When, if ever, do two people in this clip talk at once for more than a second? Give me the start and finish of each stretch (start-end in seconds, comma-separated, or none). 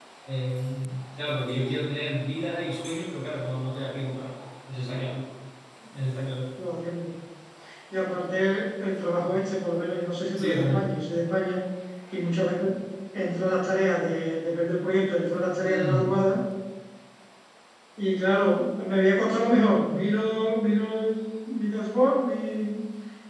none